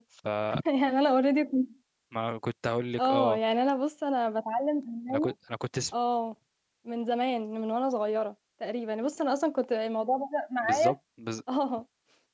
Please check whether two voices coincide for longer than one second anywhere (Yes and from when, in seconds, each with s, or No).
No